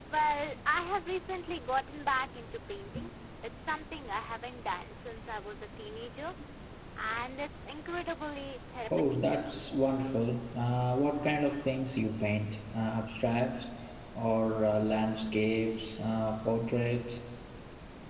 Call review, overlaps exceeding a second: none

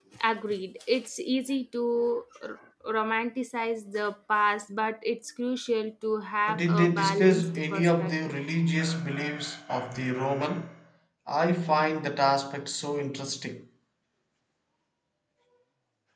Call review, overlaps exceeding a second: present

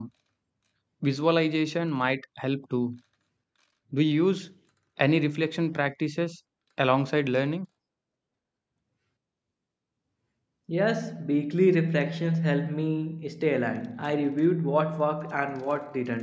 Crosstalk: none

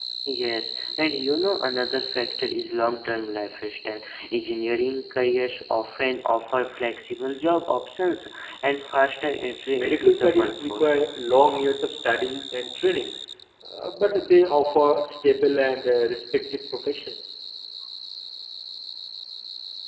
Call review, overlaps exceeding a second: present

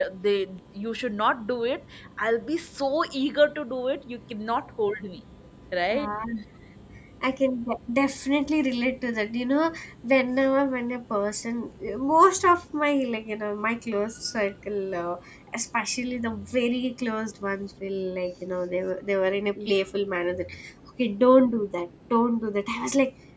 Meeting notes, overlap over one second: none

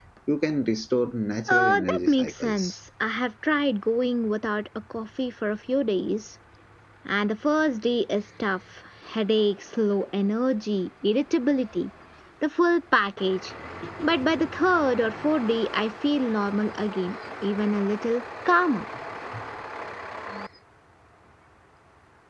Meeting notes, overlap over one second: present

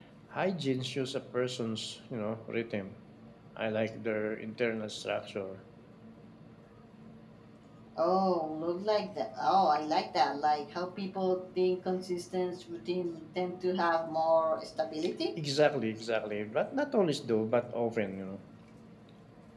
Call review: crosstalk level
none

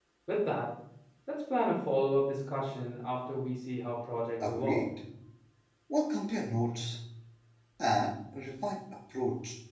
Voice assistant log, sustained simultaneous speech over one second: none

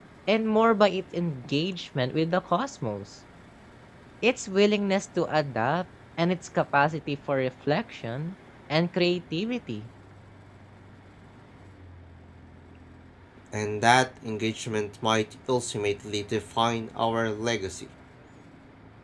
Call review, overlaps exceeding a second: none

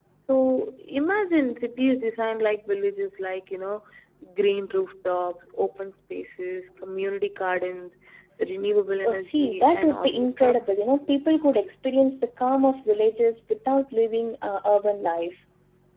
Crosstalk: present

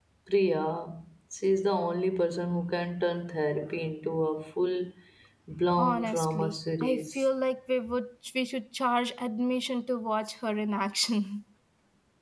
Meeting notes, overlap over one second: present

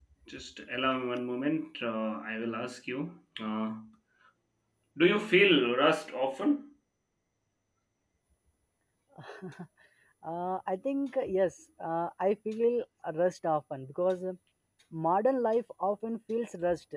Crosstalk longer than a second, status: none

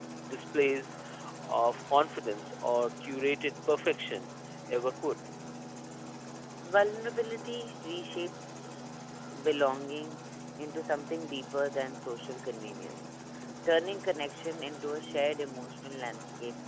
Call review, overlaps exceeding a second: none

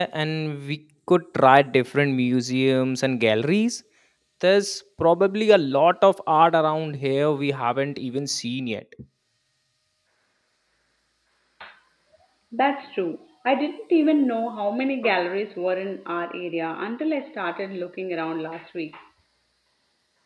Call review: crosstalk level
none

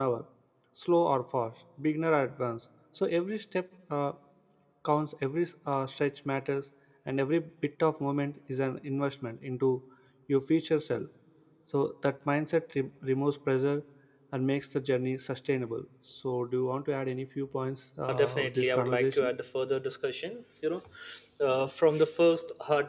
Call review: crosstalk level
present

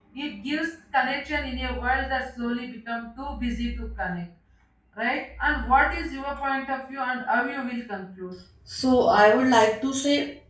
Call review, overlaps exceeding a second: none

